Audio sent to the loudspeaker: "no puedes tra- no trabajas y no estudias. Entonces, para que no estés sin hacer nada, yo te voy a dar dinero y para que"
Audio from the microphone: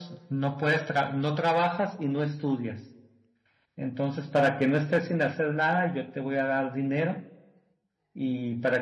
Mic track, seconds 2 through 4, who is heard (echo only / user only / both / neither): echo only